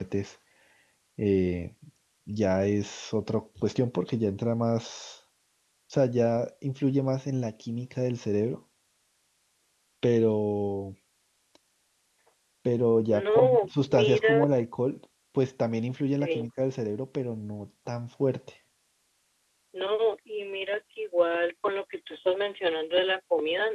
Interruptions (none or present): present